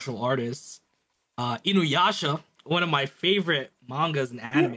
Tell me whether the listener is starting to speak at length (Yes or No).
Yes